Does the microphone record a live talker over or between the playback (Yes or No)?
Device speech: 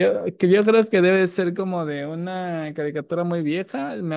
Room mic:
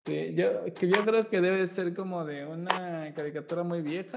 No